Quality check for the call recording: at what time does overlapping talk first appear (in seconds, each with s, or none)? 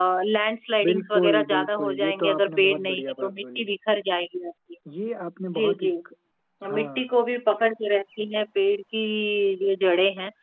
0.8 s